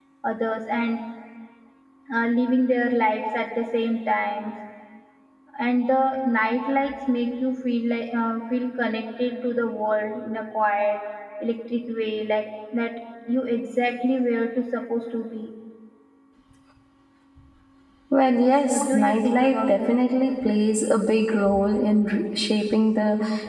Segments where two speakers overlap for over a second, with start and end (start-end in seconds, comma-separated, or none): 18.7-20.0